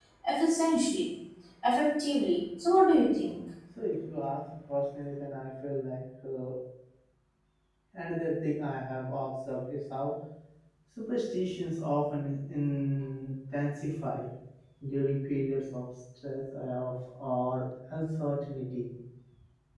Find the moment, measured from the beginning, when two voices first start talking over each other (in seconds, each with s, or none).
none